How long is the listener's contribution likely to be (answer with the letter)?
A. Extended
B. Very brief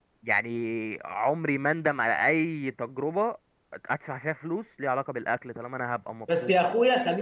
A